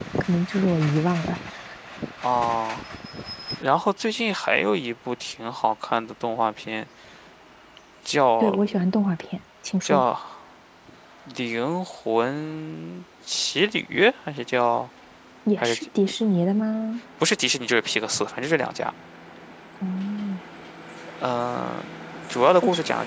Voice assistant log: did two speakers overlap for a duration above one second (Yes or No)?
No